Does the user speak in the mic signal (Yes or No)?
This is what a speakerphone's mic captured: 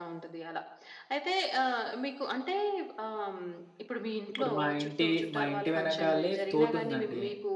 Yes